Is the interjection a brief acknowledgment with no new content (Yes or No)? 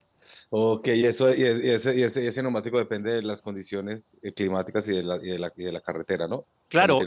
No